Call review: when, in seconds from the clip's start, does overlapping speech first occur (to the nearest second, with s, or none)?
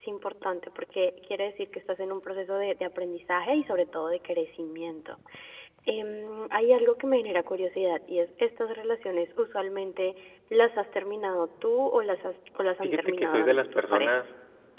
13 s